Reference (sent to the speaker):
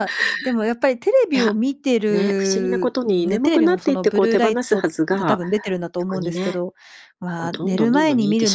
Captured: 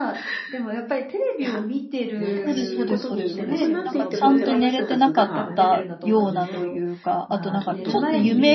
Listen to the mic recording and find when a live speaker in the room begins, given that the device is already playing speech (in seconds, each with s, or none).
2.4 s